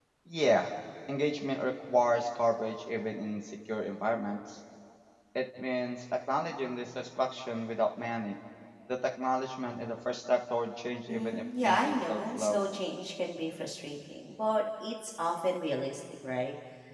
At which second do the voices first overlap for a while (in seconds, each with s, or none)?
11.1 s